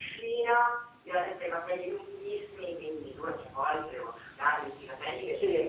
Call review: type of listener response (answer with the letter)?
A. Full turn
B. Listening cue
B